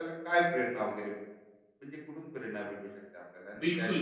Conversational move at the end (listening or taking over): taking over